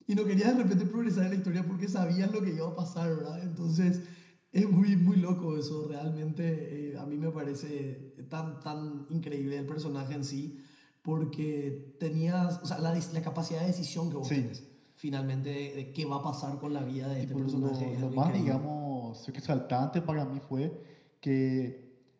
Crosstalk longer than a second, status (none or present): present